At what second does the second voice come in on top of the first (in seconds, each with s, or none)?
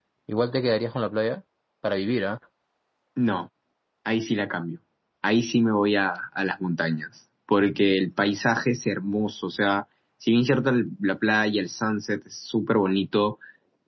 none